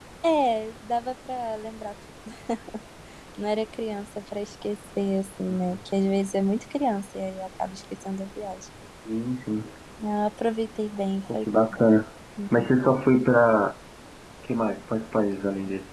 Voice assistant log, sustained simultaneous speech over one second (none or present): none